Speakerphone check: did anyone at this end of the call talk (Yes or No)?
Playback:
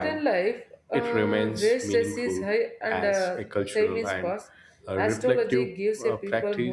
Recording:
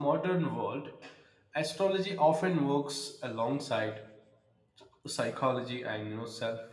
Yes